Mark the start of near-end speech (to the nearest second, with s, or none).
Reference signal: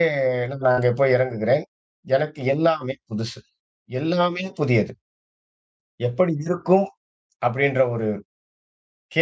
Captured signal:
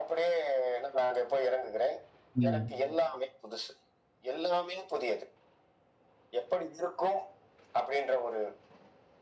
2 s